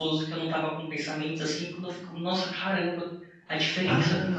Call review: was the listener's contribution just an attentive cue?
No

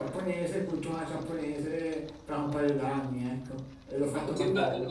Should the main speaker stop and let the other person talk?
Yes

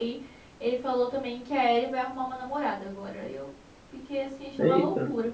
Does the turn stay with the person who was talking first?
No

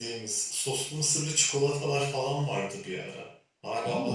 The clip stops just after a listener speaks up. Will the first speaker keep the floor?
Yes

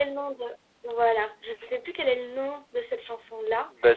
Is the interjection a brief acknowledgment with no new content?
No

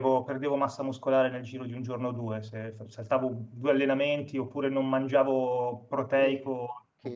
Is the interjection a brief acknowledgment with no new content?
No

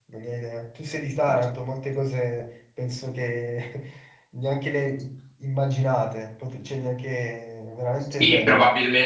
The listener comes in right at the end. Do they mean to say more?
Yes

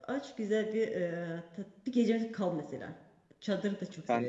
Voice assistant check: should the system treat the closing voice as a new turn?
Yes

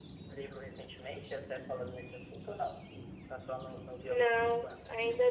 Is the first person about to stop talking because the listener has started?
Yes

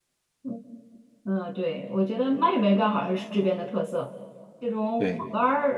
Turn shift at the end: No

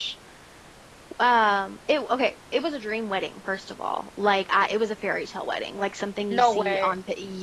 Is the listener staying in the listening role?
Yes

